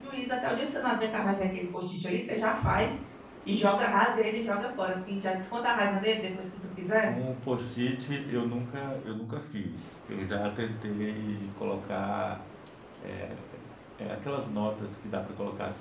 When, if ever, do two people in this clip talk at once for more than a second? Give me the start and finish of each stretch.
none

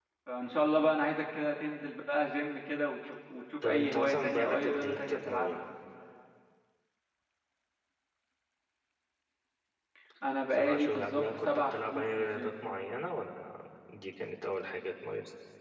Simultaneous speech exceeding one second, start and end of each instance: 3.6-5.6, 10.5-12.5

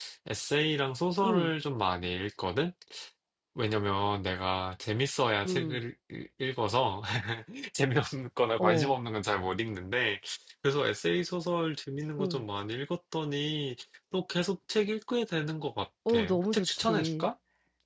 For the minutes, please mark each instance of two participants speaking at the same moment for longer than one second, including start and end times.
16.1-17.3

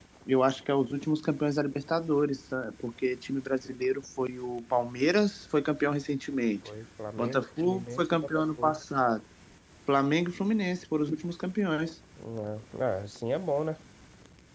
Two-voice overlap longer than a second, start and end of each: 7.2-8.8

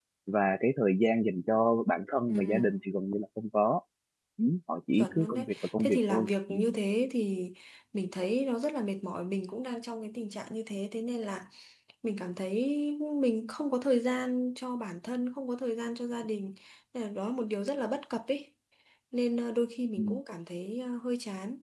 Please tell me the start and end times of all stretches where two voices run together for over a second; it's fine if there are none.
5.0-6.5

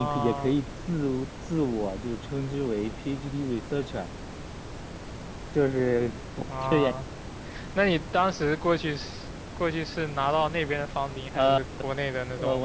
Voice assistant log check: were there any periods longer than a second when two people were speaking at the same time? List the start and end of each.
none

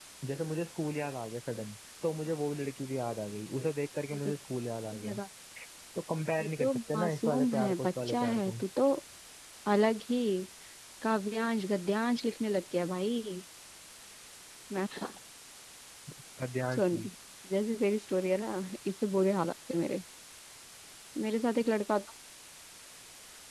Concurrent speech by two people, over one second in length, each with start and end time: 6.4-8.5

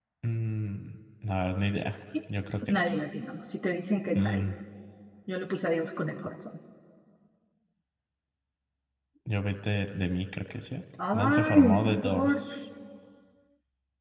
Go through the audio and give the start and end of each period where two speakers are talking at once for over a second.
11.1-12.4

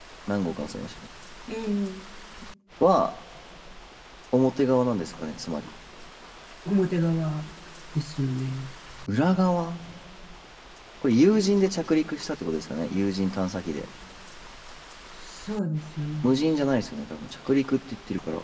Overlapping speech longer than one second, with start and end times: none

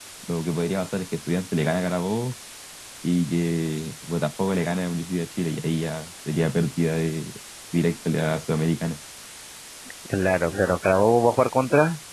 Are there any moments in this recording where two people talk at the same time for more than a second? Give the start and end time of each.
none

